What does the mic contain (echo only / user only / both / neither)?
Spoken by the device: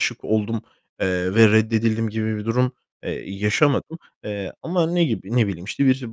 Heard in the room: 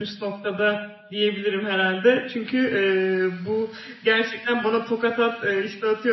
user only